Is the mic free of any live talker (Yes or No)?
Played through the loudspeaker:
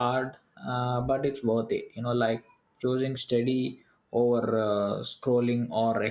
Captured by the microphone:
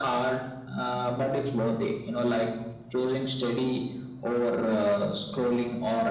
Yes